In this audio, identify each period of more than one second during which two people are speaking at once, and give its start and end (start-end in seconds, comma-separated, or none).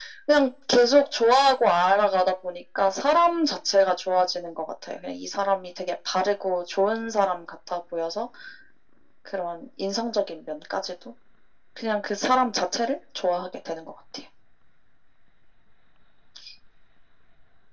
none